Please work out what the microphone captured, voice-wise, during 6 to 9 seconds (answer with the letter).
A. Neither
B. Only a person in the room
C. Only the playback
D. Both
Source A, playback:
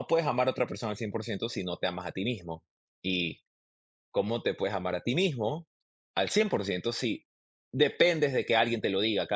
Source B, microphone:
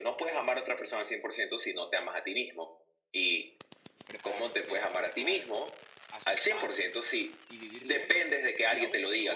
D